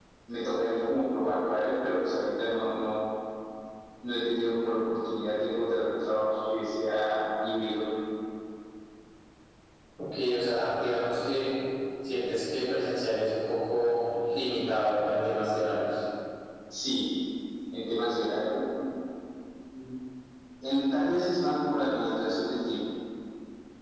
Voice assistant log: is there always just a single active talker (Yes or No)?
Yes